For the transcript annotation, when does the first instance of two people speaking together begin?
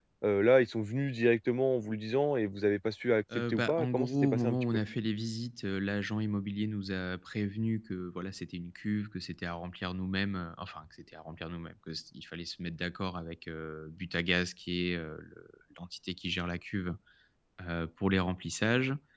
3 s

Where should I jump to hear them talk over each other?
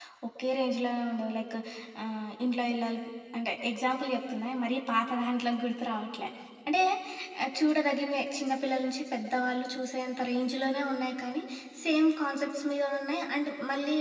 none

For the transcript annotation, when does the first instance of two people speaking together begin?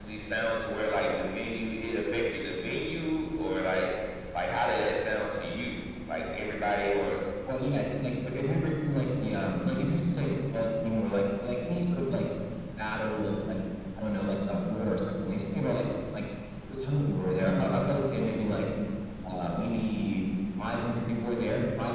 none

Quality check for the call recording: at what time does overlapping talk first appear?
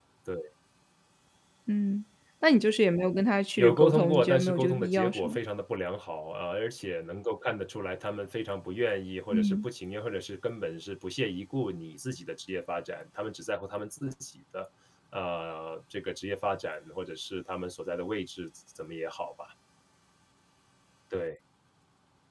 4 s

